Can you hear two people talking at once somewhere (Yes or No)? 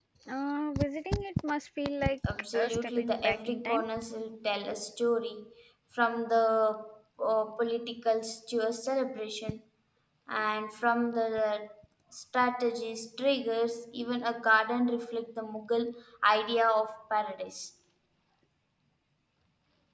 Yes